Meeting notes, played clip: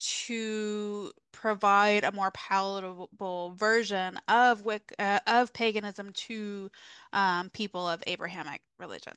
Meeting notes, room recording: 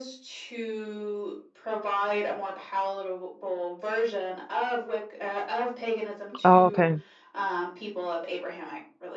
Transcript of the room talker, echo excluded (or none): Oh, okay.